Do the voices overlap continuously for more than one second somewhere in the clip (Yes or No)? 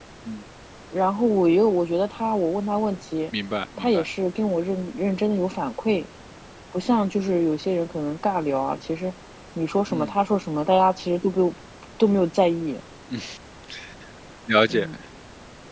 No